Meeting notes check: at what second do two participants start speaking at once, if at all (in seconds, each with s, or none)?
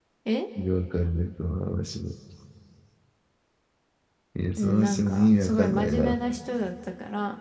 4.6 s